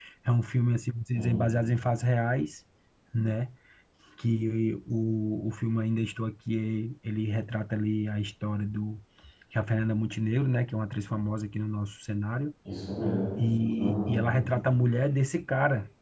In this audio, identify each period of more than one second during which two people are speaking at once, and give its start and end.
none

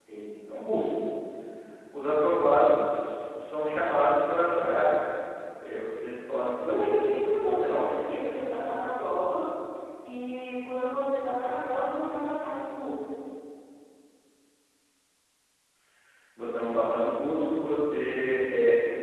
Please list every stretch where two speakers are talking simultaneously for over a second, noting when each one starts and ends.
6.6-7.8

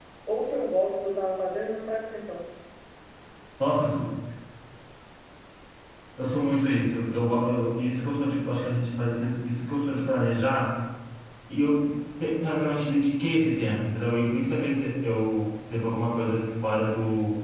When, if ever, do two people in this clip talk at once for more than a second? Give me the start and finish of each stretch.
none

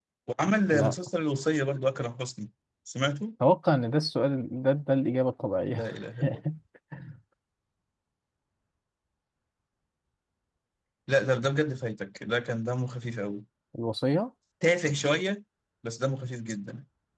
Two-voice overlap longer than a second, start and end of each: none

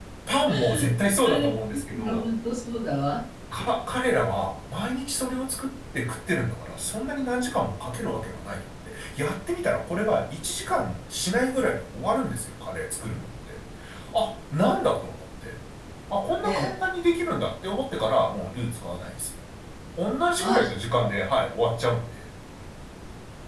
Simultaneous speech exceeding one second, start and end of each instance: none

